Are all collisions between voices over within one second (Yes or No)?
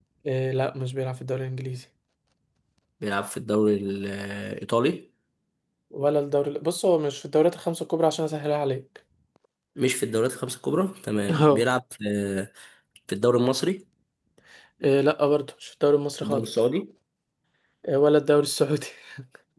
Yes